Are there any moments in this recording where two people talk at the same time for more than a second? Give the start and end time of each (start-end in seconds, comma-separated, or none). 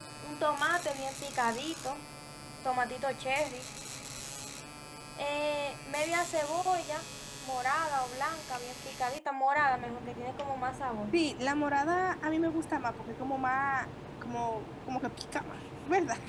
none